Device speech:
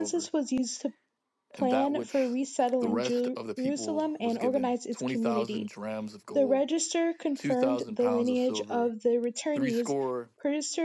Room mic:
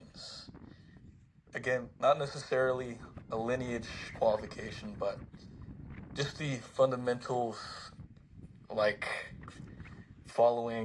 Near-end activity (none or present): present